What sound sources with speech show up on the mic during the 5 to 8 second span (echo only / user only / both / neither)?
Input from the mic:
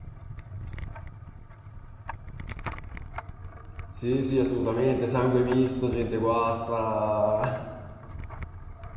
user only